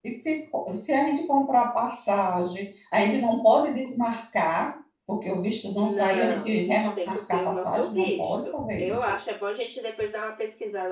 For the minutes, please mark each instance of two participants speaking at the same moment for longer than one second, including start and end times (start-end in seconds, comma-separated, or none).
5.8-9.2